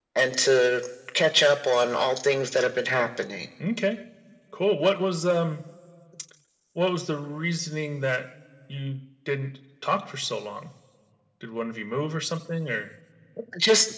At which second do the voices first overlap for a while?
none

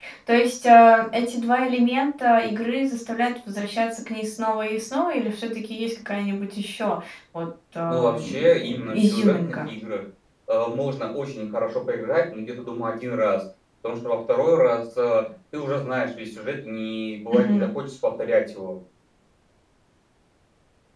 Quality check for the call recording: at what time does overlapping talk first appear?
7.9 s

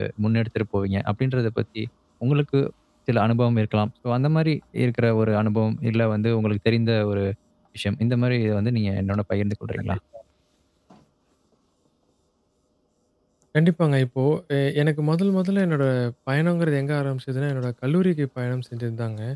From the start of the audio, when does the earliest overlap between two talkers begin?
none

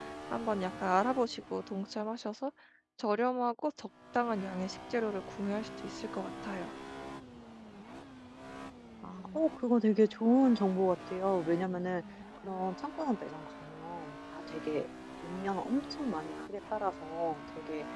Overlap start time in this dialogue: none

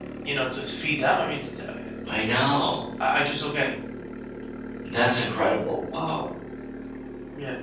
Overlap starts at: none

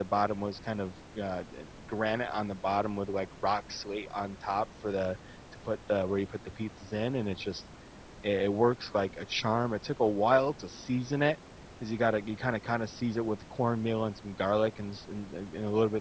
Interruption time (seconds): none

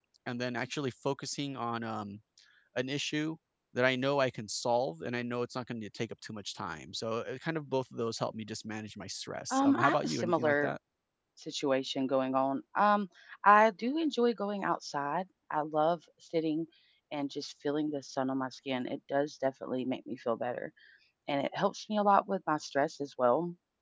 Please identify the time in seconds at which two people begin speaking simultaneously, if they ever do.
9.5 s

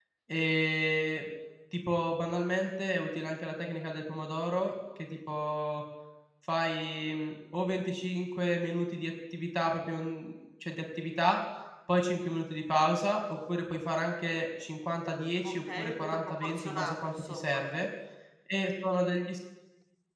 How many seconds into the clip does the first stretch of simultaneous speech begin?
15.4 s

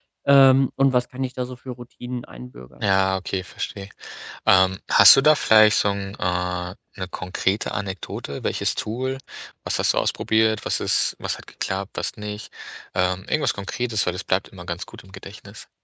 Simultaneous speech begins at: none

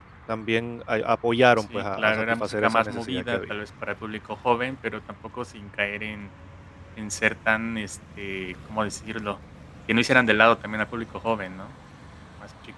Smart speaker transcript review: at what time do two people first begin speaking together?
1.7 s

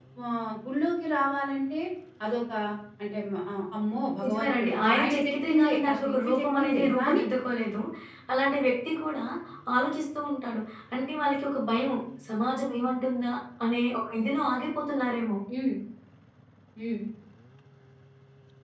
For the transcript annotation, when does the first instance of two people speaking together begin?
4.2 s

